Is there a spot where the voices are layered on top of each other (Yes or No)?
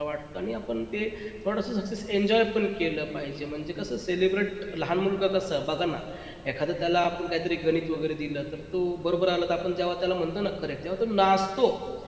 No